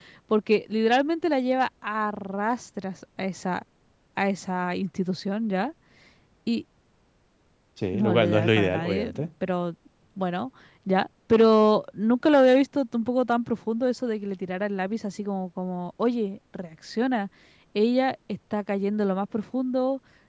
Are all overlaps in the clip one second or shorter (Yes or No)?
No